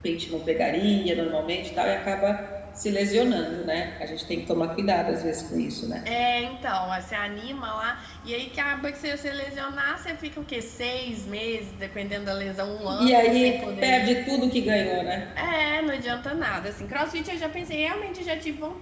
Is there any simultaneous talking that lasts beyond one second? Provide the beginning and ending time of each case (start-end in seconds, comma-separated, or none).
13.0-14.2